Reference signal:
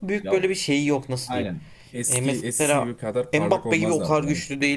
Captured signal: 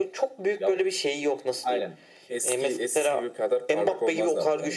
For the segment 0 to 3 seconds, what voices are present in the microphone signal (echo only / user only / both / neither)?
echo only